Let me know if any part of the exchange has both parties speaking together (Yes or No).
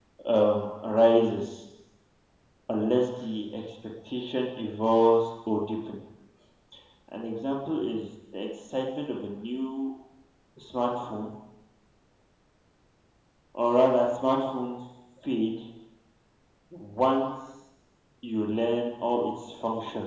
No